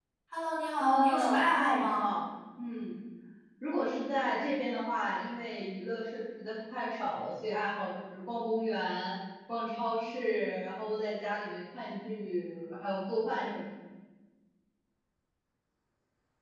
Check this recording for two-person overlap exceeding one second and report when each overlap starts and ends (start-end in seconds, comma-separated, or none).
0.8-2.1